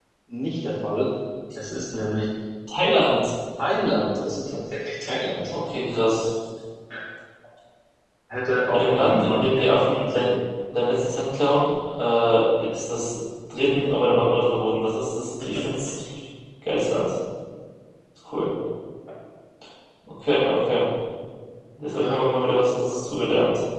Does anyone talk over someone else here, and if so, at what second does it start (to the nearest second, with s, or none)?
9 s